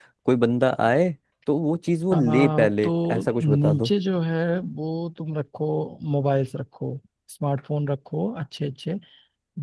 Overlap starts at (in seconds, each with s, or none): 2.1 s